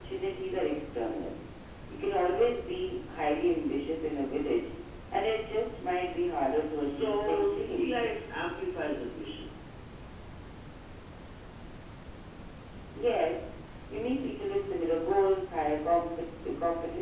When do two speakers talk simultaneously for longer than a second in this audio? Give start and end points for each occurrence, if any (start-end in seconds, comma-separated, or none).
6.7-8.1